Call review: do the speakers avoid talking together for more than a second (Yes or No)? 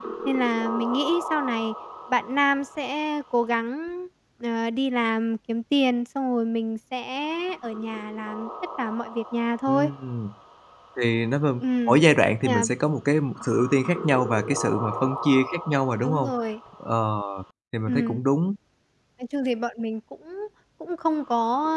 Yes